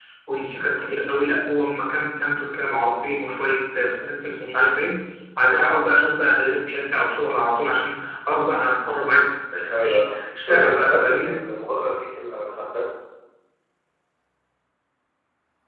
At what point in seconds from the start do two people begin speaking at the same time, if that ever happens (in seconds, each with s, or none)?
9.7 s